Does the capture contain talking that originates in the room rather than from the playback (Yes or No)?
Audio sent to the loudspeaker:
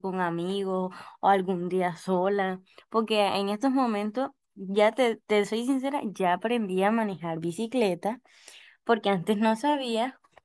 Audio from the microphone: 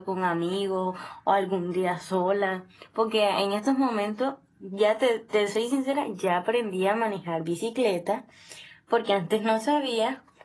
No